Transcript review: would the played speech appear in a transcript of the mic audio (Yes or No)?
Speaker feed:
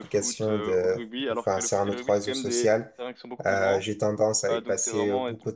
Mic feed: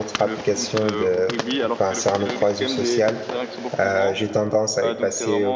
Yes